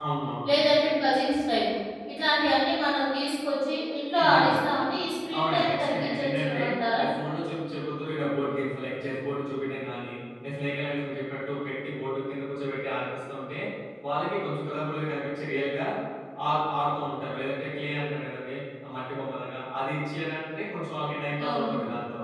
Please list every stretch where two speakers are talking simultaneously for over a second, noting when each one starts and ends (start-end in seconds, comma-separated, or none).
5.3-6.6